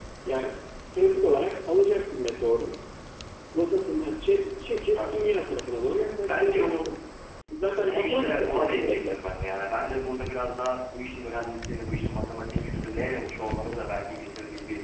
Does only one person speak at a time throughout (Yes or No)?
No